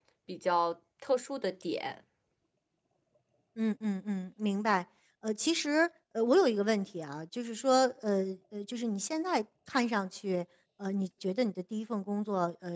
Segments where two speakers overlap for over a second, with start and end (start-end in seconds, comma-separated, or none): none